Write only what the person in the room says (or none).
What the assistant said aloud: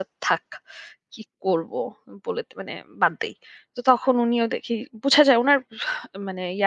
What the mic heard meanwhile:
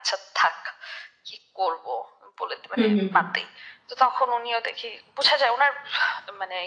হুম, হুম, হুম।